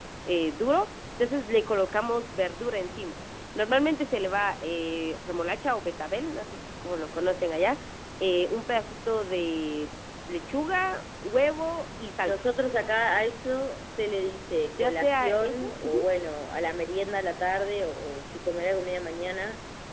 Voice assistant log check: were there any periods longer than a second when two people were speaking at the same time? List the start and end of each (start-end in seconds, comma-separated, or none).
14.8-16.0